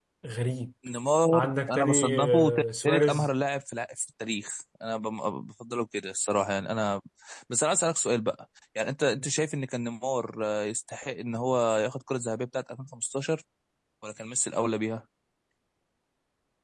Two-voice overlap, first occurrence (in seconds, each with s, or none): 1.3 s